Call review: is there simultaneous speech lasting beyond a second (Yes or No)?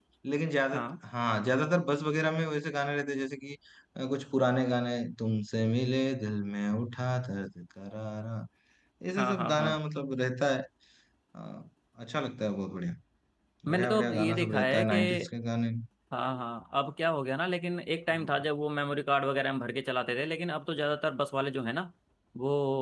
Yes